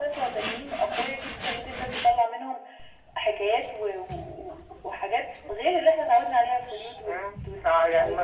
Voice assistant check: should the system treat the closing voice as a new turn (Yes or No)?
Yes